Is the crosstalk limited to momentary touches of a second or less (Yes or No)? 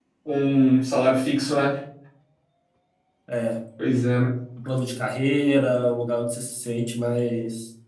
Yes